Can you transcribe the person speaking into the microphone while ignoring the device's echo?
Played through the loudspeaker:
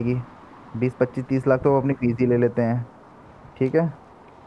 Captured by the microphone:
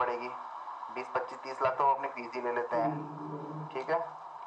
ठीक है ठीक है भाई

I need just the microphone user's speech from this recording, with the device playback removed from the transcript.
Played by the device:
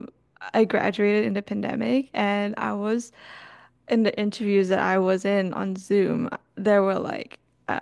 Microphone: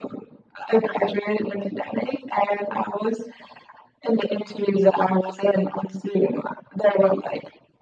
none

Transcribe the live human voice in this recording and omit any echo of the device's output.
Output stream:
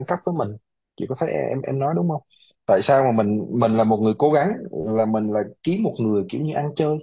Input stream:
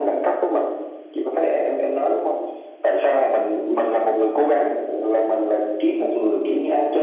none

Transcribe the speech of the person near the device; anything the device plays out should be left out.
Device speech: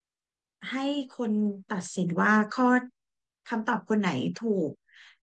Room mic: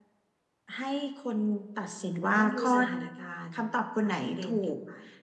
มันต้องดูสถานการณ์ปรับเปลี่ยนกันไป

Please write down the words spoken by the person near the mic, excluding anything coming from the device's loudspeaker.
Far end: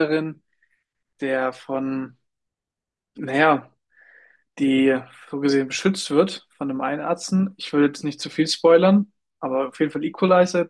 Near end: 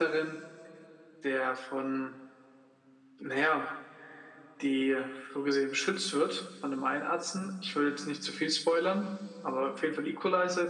none

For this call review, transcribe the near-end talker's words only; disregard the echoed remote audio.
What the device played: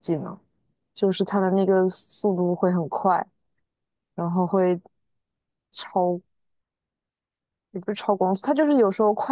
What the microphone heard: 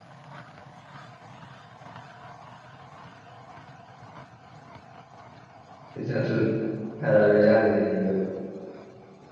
就像是《泰拉瑞亚》里面一个

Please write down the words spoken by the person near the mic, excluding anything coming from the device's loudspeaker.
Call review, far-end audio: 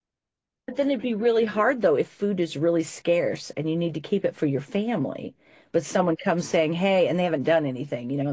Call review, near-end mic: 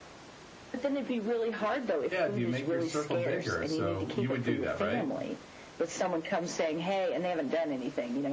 Yeah, do you make your circle bigger? So you would do that, right?

